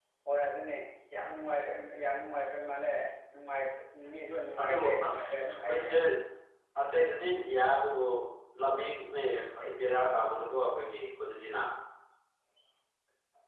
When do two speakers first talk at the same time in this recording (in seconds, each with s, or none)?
4.6 s